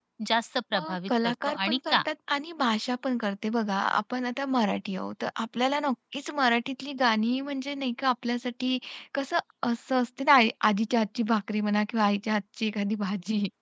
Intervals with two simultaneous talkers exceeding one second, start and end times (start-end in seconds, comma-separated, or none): 0.7-2.0